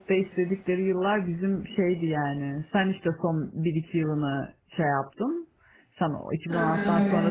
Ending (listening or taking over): listening